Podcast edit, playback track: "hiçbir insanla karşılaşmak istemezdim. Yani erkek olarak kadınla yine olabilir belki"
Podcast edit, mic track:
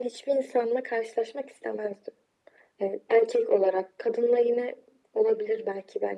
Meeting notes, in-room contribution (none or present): none